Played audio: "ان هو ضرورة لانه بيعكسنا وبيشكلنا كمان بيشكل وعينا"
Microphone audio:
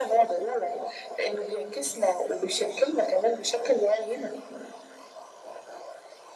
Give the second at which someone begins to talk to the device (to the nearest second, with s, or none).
none